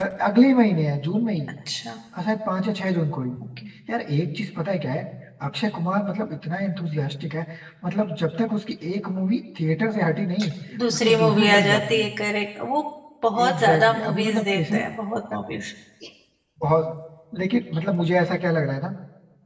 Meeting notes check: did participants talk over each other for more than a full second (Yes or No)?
Yes